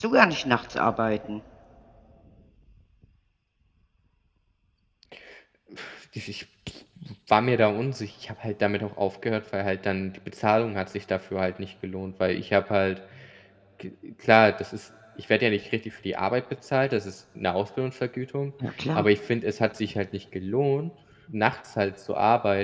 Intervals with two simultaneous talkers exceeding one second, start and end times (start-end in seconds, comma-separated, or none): none